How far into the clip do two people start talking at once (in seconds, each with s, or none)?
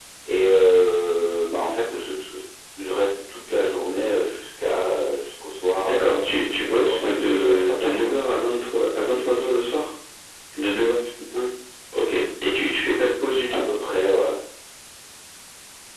5.8 s